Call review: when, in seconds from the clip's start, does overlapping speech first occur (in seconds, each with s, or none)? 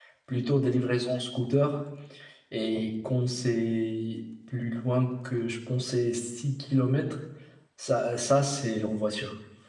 none